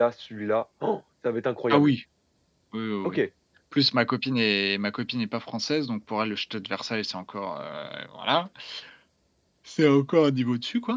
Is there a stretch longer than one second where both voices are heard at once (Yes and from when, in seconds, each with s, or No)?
No